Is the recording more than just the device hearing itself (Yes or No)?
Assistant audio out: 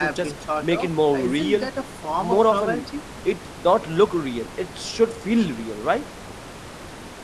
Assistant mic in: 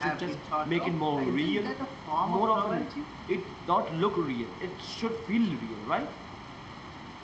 No